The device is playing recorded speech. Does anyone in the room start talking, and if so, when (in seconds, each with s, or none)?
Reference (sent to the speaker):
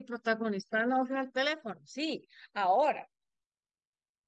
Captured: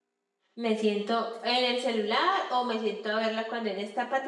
0.5 s